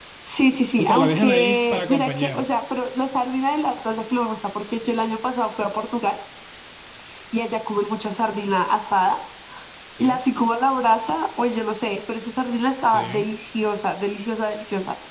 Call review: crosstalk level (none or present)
present